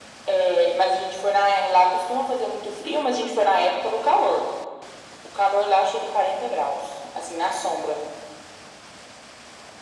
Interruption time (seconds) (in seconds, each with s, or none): none